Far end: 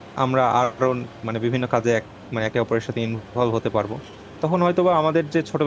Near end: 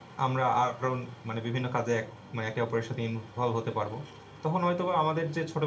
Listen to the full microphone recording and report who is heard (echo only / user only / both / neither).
echo only